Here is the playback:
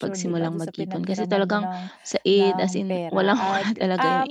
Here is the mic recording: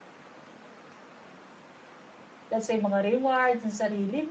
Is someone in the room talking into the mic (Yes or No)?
Yes